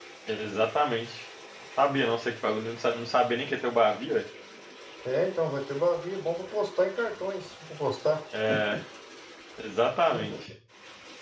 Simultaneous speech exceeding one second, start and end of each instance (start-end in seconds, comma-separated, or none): none